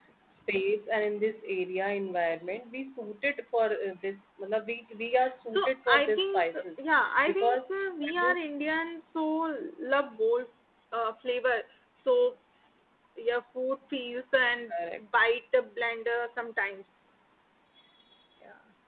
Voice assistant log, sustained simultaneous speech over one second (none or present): present